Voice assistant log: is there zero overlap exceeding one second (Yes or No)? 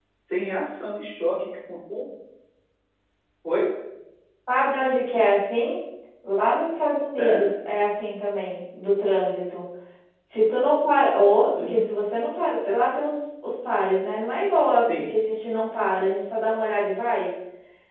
Yes